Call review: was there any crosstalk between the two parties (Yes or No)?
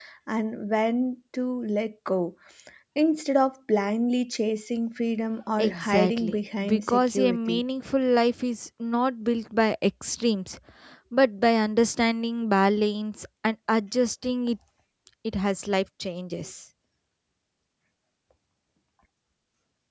Yes